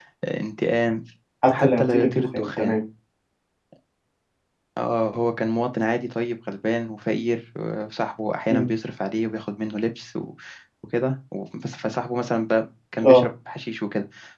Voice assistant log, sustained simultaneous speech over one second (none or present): present